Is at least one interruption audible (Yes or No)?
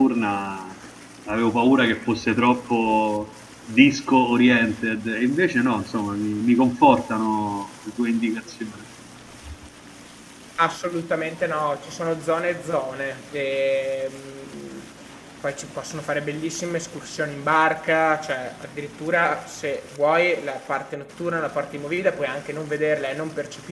No